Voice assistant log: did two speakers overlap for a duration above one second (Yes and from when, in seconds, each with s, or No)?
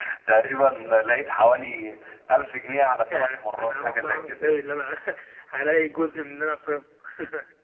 Yes, from 3.1 s